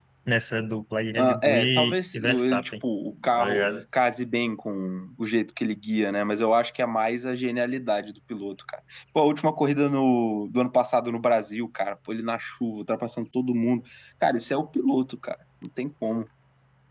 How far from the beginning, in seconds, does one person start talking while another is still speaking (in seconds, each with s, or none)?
1.2 s